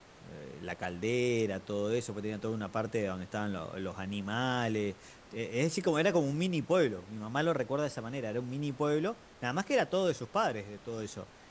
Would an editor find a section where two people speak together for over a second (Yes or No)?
No